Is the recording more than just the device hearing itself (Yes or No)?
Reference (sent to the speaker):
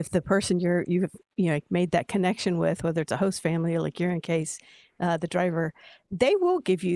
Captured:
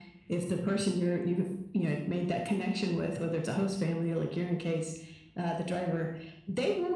No